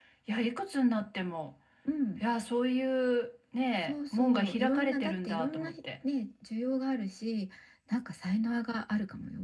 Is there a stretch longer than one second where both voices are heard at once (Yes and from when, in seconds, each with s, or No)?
Yes, from 3.8 s